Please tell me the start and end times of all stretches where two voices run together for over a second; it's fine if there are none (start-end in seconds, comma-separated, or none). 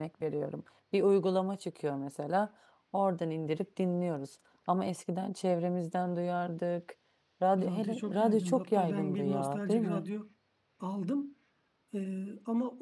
7.6-10.0